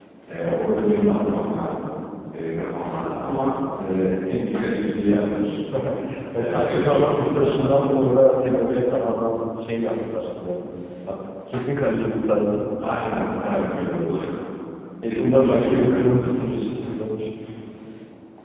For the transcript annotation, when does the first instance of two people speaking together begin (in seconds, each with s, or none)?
6.3 s